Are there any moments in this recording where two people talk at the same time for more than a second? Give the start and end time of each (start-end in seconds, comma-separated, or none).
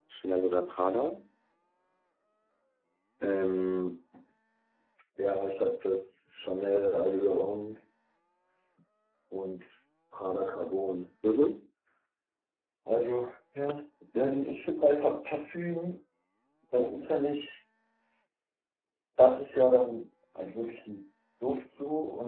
none